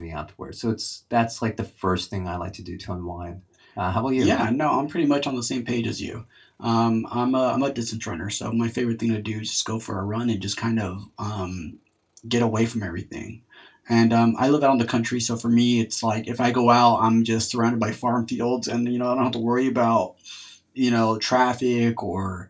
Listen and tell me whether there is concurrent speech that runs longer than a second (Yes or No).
No